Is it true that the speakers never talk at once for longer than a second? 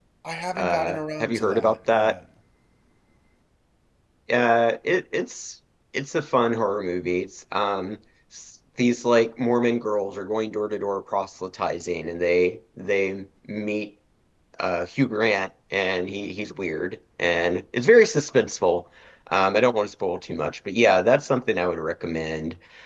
No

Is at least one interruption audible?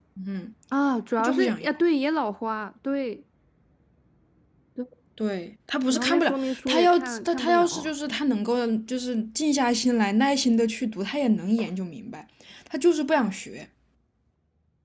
Yes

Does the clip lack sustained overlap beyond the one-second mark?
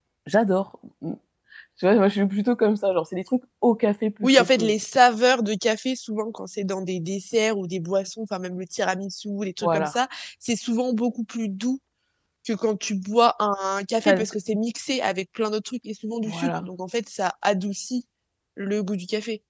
Yes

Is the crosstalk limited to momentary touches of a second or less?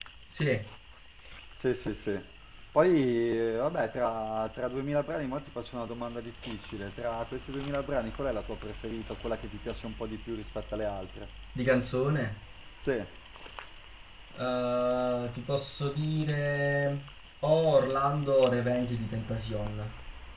Yes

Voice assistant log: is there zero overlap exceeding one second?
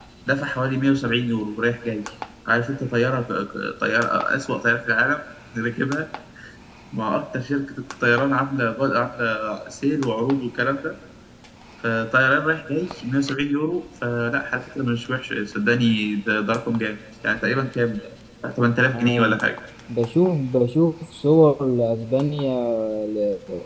Yes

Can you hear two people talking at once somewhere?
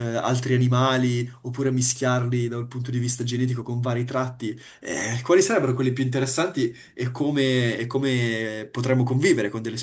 No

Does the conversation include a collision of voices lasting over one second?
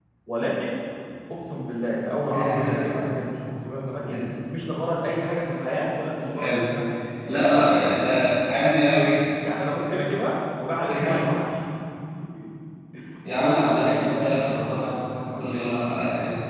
Yes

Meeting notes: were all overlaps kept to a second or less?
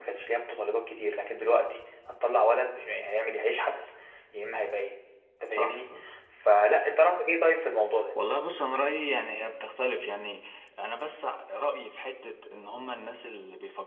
Yes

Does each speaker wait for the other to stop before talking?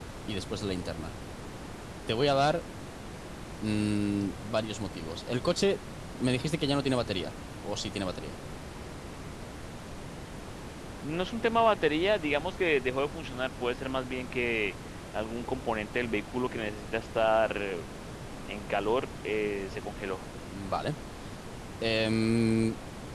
Yes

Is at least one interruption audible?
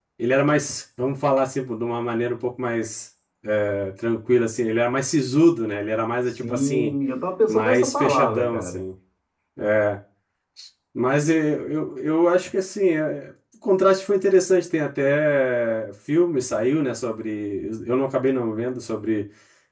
Yes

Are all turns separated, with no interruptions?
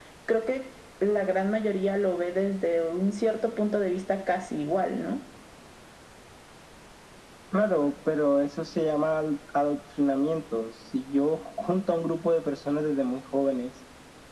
Yes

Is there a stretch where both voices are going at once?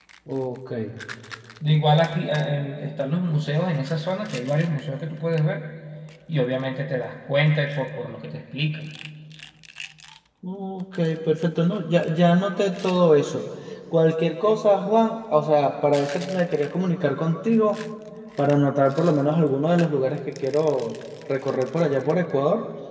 No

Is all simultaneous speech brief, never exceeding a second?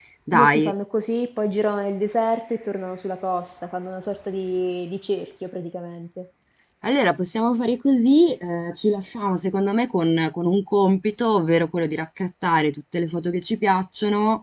Yes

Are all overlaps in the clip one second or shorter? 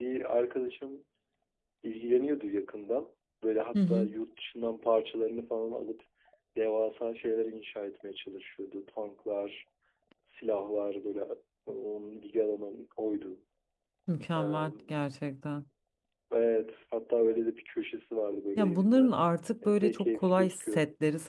No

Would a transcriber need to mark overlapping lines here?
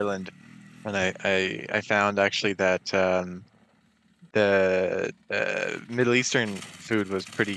No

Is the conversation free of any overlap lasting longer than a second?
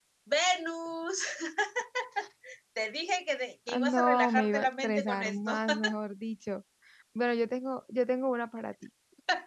No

